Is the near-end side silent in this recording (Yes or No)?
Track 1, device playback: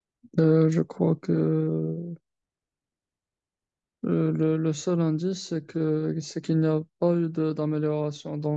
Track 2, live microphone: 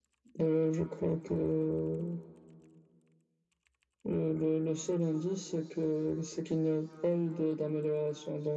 Yes